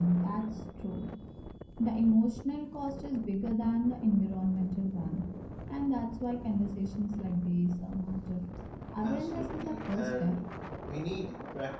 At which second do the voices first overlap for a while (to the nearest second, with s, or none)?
9 s